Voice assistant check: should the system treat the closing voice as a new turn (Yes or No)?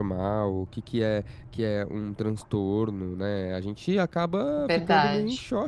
No